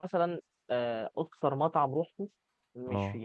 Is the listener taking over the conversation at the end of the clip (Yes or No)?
No